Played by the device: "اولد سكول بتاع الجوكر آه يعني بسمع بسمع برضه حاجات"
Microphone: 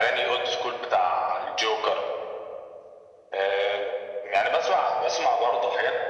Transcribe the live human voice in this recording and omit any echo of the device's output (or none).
none